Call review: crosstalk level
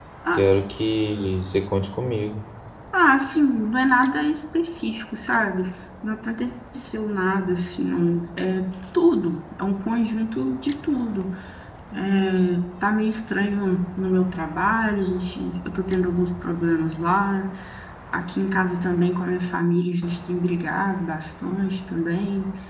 none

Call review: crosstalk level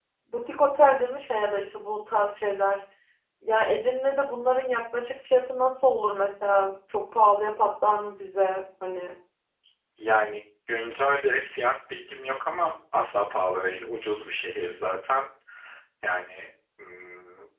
none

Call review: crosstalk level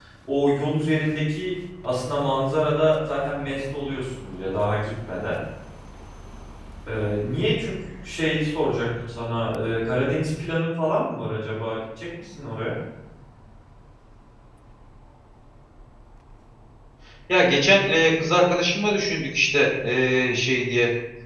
none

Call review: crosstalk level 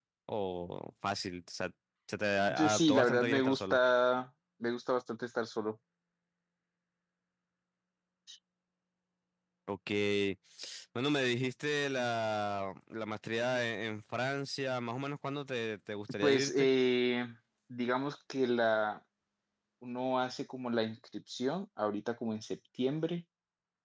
present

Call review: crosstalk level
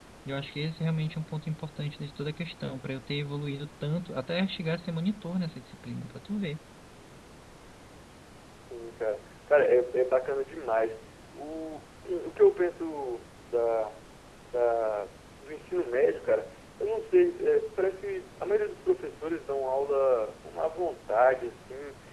none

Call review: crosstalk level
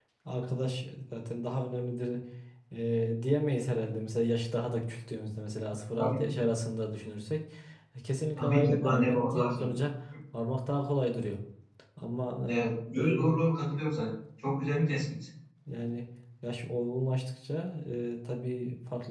present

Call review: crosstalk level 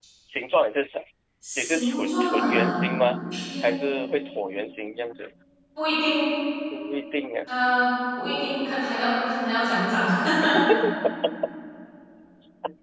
present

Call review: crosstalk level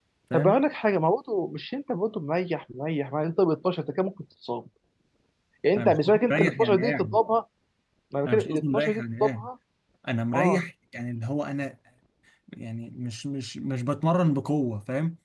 present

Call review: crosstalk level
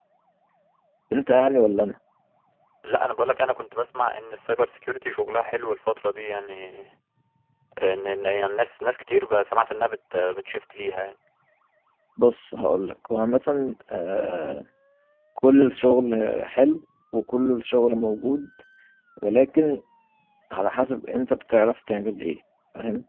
none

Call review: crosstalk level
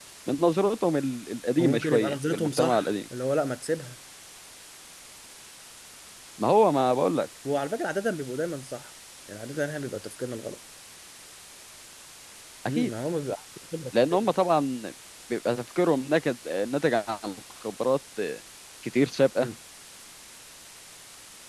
present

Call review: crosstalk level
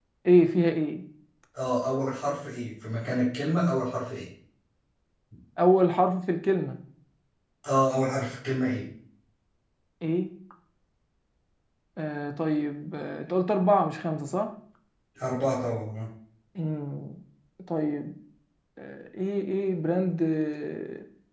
none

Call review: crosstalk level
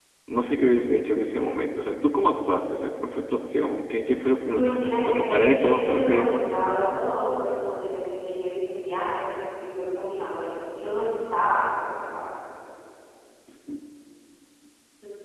present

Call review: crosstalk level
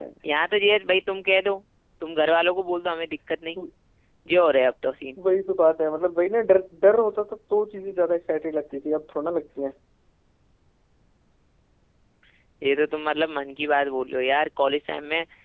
none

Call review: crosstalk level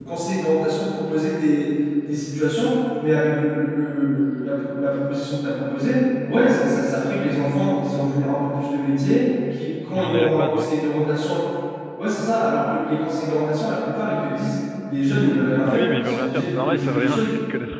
present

